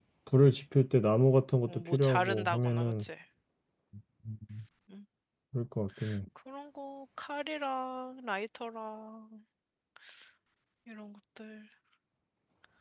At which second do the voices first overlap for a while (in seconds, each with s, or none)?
1.7 s